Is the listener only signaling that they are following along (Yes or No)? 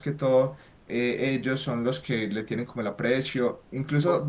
Yes